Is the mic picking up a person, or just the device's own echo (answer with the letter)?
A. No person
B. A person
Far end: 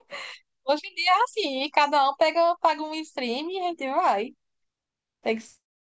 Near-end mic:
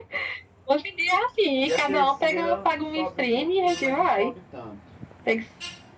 B